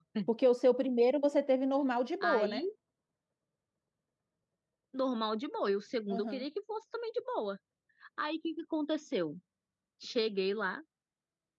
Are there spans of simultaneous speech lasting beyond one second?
No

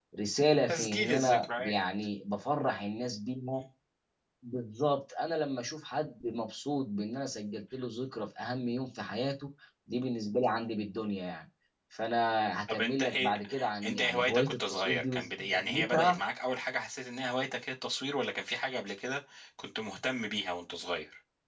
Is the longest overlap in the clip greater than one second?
Yes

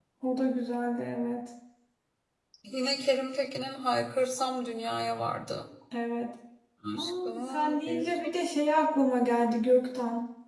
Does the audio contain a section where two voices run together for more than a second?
Yes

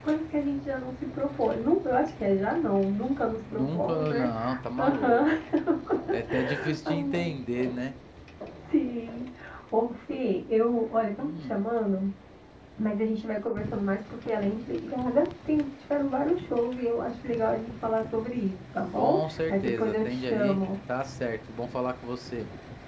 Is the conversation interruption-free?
No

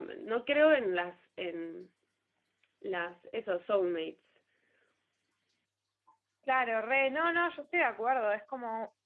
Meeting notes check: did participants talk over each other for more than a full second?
No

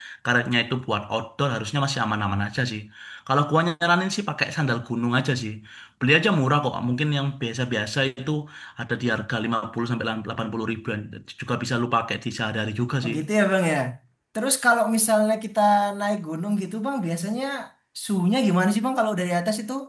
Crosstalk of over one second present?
No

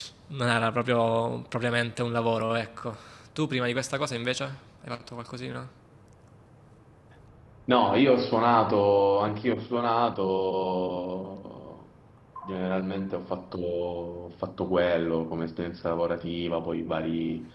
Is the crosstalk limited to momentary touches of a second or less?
Yes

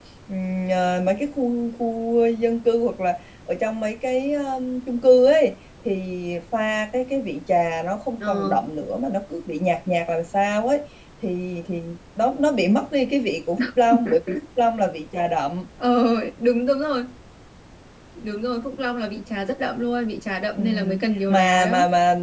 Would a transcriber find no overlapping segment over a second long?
Yes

